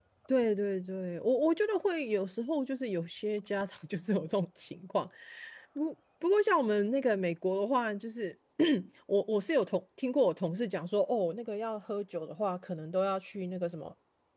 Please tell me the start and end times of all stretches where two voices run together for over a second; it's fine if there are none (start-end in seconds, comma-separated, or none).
none